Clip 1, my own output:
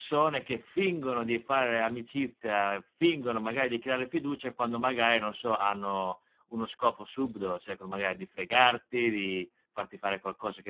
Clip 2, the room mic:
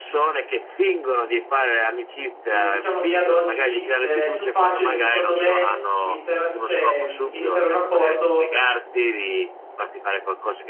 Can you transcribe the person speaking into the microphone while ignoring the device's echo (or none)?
ehm, diciamo che ad oggi è più facile secondo me intera cioè, mhmm, iniziare un rapporto,